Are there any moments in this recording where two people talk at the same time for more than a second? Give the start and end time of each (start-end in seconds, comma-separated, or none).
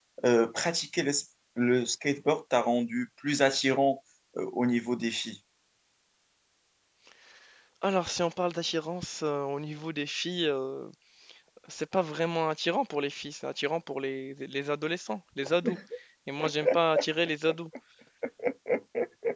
none